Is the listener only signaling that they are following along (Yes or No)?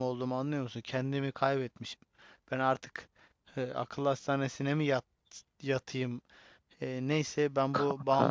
Yes